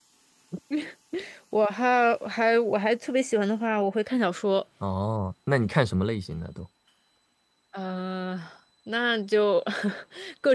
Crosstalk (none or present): none